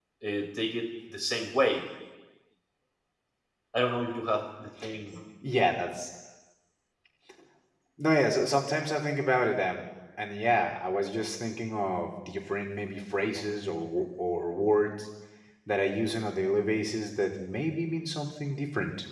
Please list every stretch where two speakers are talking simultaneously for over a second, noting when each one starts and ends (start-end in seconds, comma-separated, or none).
none